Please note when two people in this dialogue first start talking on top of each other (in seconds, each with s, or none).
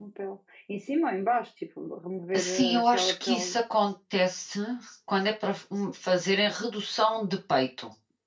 2.3 s